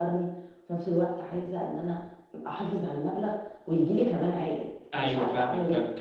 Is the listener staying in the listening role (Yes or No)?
No